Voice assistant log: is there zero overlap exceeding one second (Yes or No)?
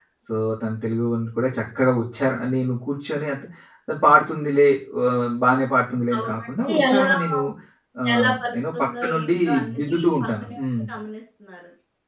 No